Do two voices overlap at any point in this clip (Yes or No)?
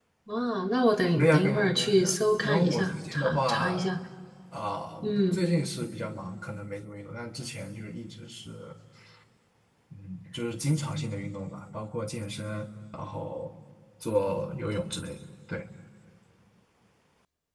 Yes